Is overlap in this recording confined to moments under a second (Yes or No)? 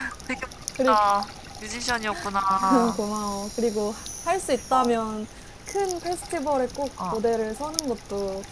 Yes